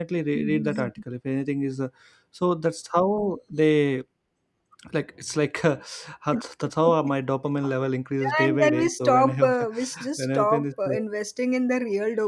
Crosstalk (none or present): present